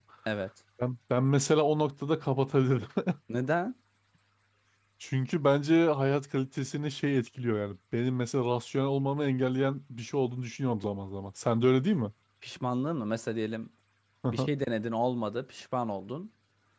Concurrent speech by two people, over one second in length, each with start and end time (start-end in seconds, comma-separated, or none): none